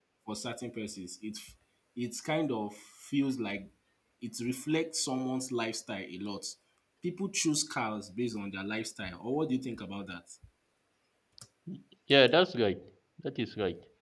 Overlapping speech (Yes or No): No